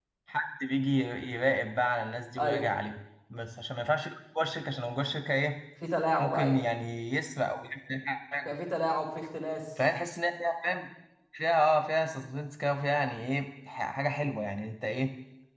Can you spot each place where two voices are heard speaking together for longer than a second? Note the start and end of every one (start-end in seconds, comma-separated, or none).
none